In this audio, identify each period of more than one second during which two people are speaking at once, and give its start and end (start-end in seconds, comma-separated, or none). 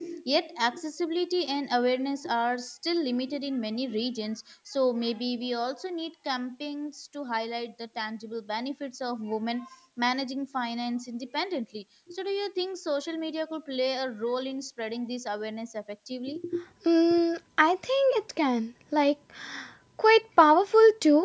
none